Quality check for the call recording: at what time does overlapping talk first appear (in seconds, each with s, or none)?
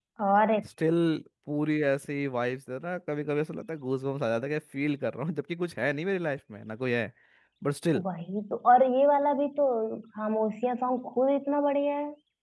none